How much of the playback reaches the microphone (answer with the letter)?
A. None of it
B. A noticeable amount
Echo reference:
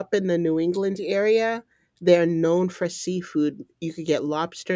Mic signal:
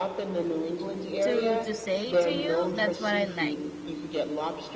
B